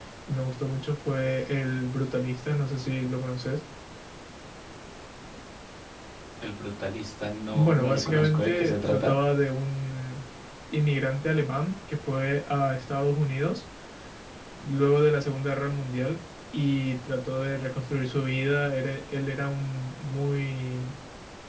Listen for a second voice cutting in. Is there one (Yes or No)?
Yes